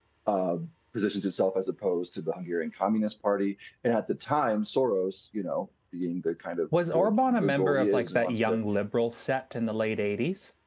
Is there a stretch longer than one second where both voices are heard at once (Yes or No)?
Yes